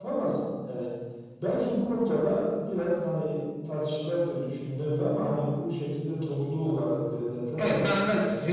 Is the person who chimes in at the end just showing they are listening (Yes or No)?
No